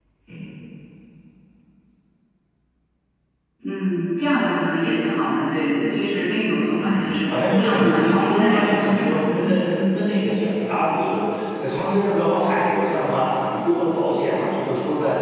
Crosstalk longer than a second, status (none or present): present